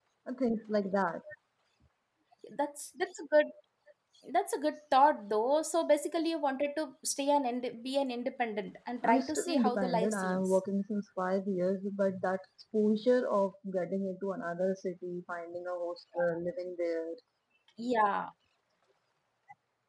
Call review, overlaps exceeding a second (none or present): present